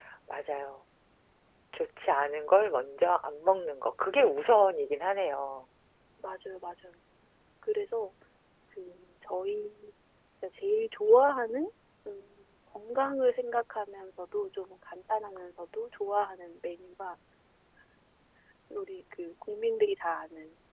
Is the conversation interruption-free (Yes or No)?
Yes